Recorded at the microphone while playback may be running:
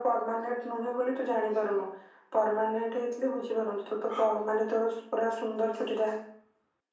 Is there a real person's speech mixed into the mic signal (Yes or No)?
No